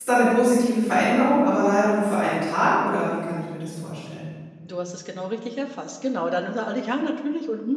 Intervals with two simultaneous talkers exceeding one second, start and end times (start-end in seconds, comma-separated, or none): none